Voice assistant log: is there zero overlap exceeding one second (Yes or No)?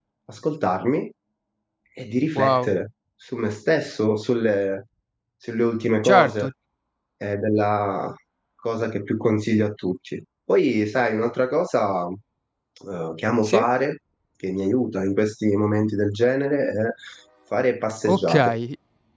Yes